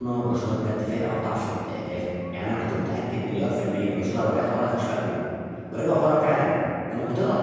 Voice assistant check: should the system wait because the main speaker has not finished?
Yes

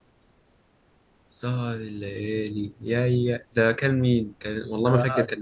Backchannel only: No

